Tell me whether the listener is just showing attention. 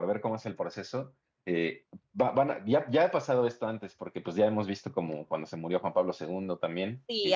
Yes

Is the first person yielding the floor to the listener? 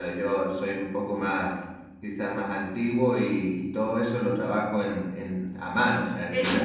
Yes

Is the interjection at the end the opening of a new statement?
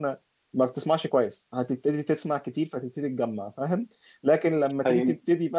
No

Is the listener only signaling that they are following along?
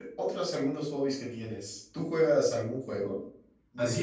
No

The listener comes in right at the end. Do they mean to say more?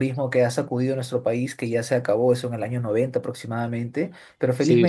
Yes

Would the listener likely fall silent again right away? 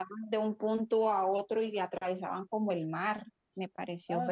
No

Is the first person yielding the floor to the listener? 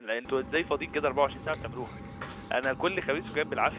No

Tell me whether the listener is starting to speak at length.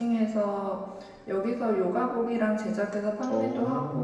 No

